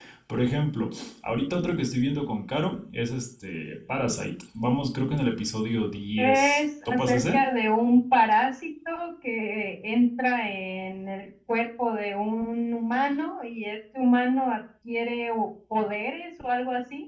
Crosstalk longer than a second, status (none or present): present